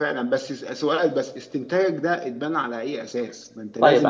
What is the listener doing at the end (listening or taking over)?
listening